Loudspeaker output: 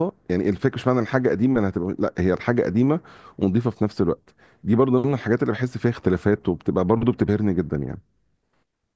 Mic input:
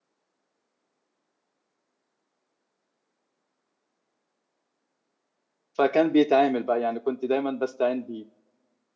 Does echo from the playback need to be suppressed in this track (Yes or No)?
No